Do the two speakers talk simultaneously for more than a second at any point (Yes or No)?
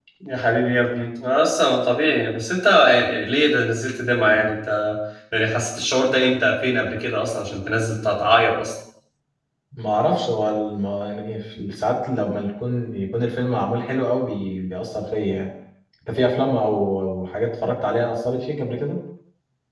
No